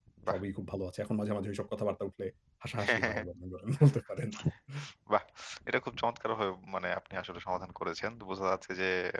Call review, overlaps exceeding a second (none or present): none